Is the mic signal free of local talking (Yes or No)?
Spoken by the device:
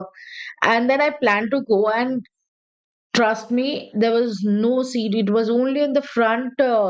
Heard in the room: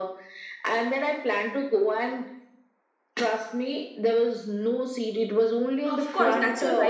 No